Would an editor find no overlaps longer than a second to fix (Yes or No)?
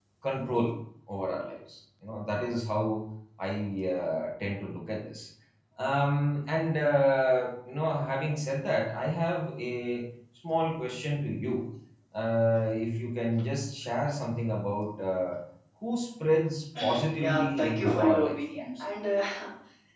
No